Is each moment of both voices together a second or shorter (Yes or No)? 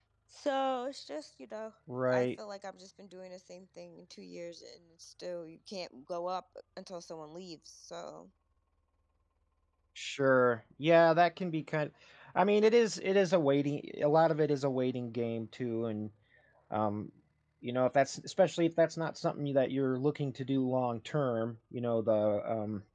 Yes